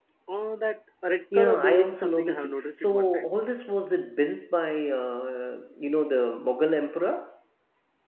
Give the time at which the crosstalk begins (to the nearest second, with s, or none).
1 s